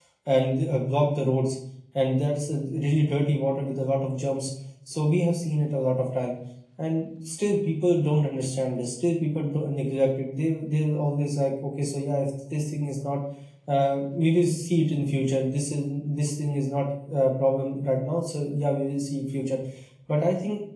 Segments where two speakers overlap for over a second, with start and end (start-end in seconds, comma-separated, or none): none